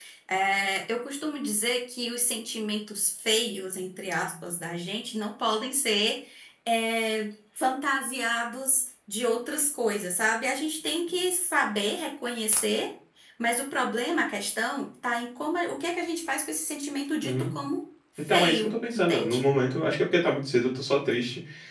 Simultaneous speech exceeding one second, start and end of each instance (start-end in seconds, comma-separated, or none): 18.2-19.4